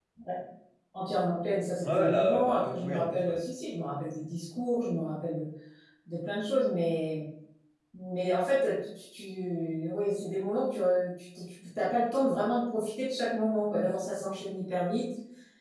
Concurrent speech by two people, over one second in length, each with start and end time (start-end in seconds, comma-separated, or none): 1.8-3.4